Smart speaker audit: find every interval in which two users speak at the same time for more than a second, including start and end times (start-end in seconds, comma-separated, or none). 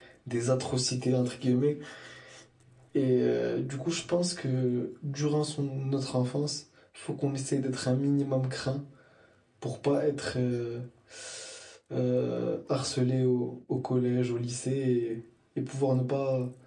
none